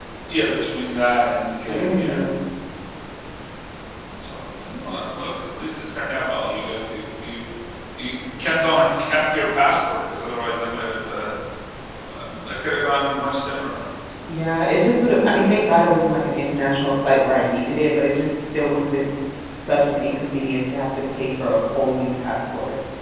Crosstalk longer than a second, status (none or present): none